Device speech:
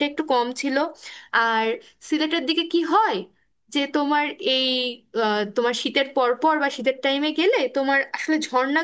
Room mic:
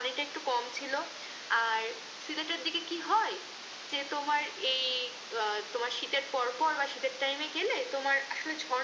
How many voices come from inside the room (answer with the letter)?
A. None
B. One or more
A